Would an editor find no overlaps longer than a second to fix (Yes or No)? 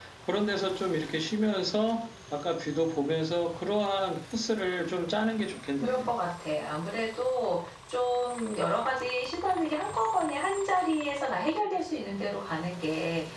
Yes